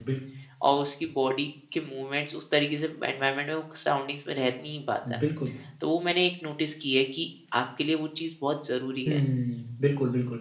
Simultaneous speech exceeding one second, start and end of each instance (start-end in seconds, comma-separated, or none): none